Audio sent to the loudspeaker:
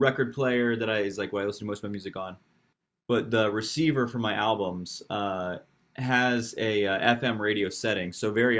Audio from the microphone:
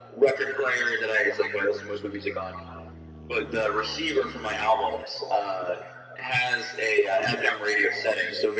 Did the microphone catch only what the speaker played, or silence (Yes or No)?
Yes